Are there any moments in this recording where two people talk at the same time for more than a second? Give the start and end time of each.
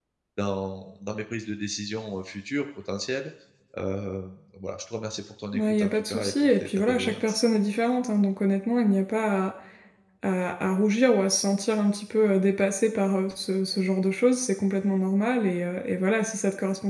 5.5-7.4

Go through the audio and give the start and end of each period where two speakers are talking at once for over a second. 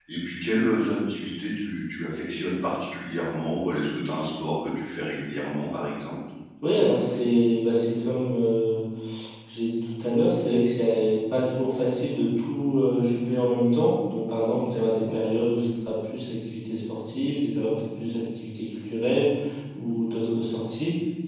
none

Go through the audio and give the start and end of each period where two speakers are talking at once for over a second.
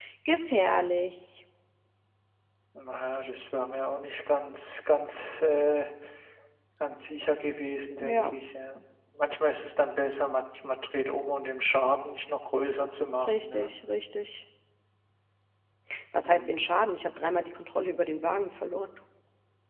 none

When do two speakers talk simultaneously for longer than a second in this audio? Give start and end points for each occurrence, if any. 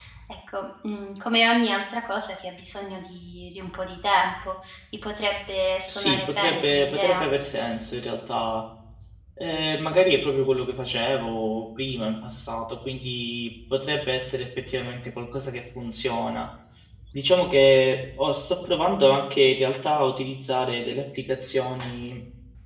5.9-7.2

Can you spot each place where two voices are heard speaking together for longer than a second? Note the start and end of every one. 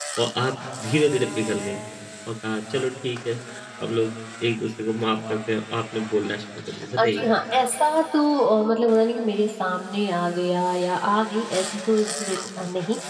none

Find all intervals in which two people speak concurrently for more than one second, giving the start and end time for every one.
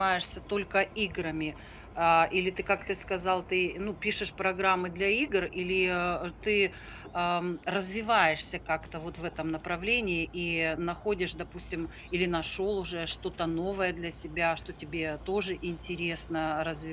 none

